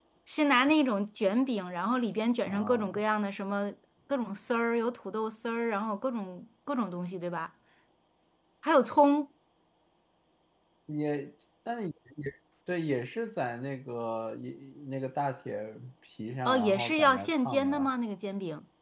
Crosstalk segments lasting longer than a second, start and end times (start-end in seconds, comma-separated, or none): 16.4-17.9